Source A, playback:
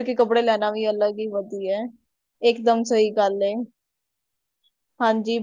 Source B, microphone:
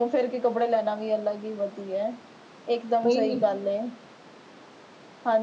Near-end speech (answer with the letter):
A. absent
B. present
B